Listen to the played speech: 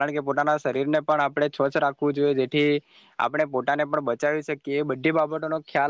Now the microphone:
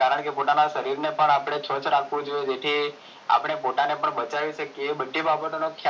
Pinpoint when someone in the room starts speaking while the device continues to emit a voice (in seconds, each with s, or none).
none